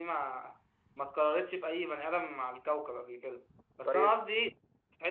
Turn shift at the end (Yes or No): No